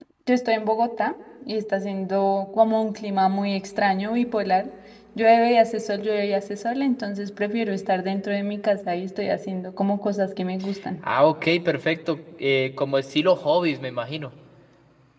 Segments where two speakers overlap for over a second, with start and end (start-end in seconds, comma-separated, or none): none